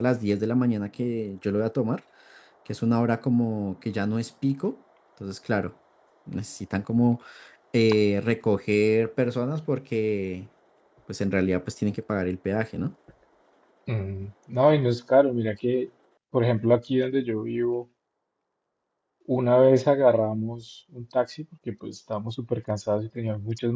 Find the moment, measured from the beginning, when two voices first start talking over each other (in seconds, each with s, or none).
none